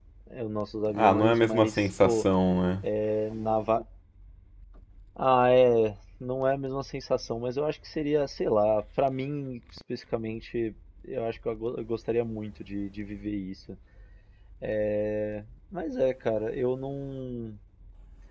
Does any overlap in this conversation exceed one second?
Yes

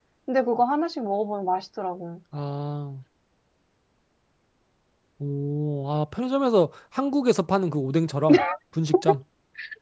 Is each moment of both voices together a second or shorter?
Yes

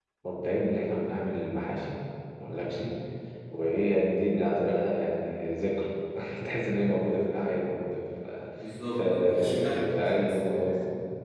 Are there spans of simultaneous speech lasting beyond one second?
Yes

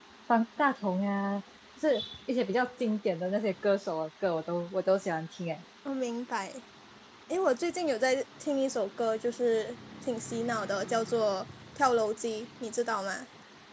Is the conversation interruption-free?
Yes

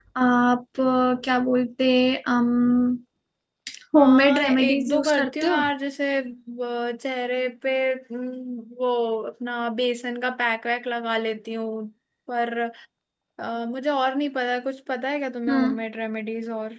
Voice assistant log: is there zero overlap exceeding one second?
No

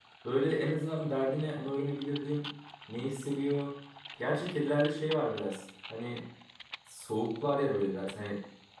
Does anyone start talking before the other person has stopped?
No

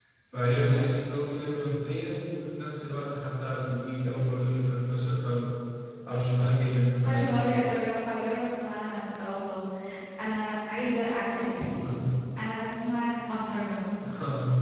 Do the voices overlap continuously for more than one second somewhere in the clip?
No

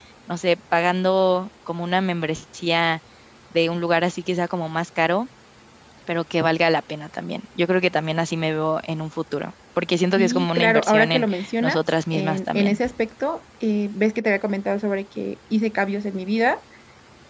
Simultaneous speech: Yes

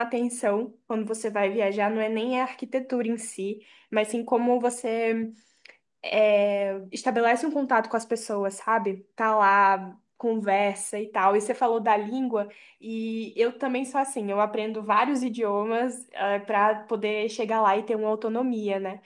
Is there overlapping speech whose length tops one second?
No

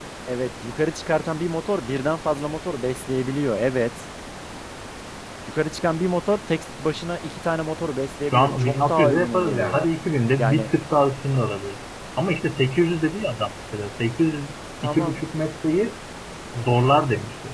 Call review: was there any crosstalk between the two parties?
Yes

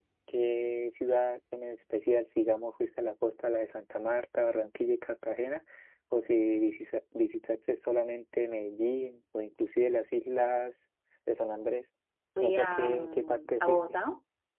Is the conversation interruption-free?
No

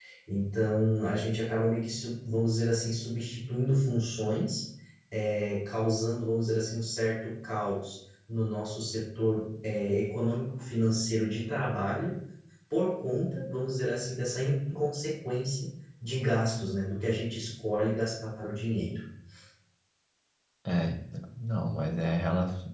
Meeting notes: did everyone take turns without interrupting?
Yes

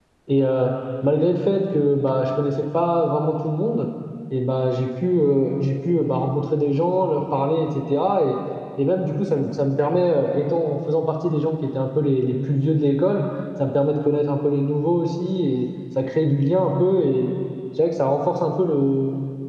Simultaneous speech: No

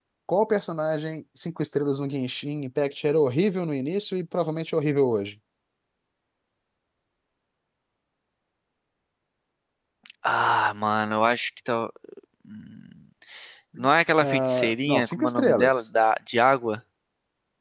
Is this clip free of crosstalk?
No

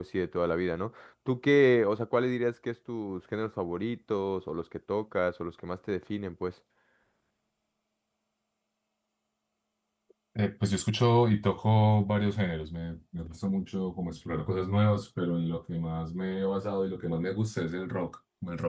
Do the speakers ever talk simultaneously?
No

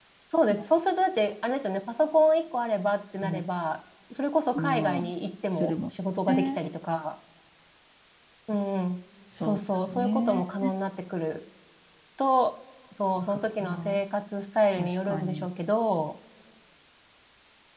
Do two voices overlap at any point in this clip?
Yes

